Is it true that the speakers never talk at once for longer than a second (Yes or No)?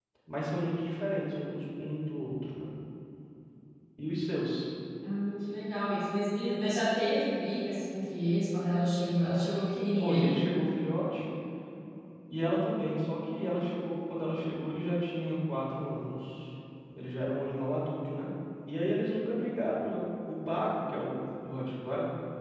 Yes